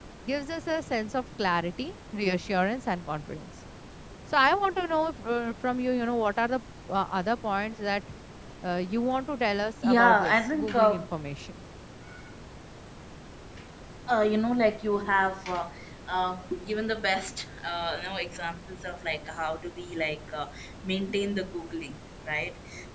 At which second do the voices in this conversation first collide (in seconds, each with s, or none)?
9.8 s